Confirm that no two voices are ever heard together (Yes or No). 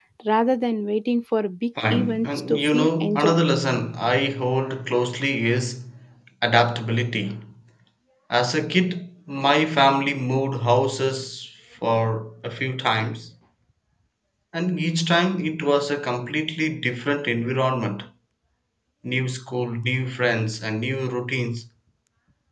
No